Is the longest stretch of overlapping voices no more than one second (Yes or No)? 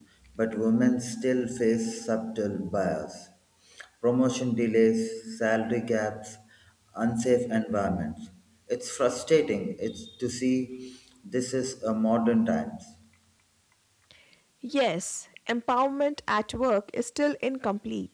Yes